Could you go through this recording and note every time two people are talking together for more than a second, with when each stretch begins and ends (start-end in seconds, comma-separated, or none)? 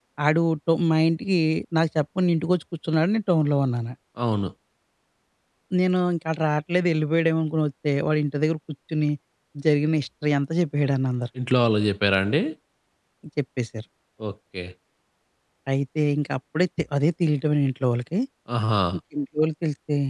none